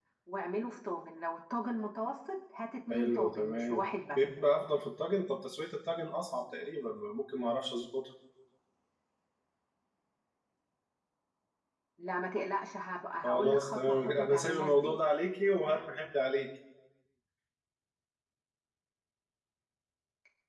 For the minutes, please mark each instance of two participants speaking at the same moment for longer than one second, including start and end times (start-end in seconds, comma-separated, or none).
2.9-4.2, 13.2-15.0